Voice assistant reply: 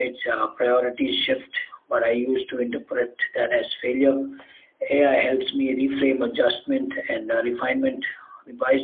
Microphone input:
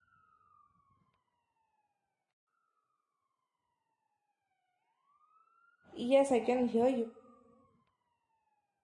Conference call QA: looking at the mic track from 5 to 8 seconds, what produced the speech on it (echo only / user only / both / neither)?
user only